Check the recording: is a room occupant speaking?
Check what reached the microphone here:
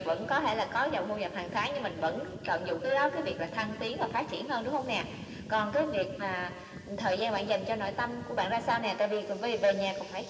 No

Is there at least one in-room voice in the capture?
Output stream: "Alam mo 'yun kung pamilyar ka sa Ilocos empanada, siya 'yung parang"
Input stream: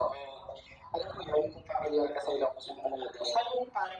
No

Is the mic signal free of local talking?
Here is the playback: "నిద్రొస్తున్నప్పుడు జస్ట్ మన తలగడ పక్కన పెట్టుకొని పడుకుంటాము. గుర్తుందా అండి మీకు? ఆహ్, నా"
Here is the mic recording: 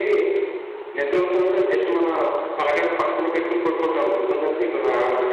Yes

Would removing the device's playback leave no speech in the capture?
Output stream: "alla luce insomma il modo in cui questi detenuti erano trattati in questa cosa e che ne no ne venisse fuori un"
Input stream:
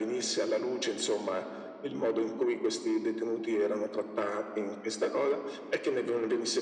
Yes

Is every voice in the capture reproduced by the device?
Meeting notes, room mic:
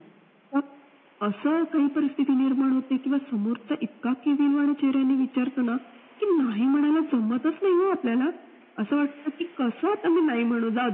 Yes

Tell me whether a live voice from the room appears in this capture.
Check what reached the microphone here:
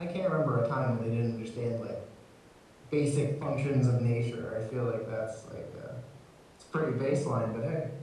Yes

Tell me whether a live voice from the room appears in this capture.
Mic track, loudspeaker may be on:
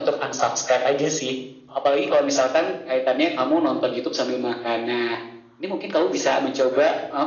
No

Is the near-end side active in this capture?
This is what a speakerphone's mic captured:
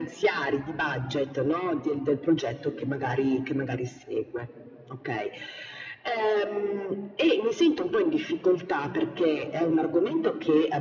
No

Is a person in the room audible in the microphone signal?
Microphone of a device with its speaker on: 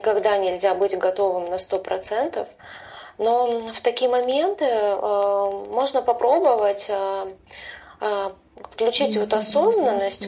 Yes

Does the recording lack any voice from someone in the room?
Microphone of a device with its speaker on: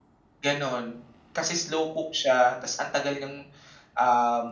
No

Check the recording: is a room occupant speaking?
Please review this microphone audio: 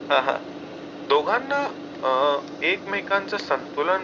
No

